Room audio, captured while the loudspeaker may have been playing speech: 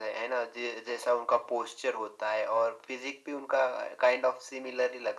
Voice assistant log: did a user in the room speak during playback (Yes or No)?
No